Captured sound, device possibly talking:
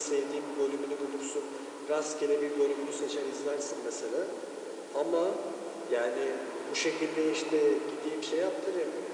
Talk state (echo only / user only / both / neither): echo only